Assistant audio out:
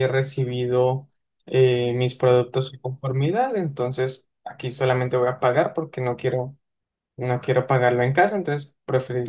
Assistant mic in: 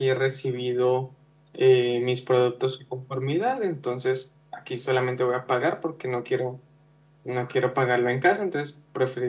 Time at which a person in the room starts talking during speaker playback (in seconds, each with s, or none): none